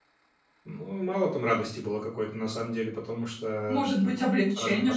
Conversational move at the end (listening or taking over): taking over